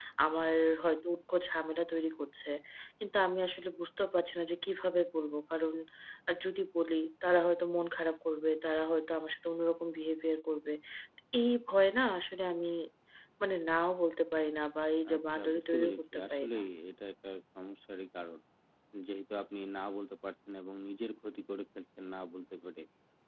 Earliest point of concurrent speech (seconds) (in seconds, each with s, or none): 15.1 s